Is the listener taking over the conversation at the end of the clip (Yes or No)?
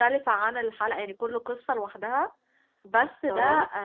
No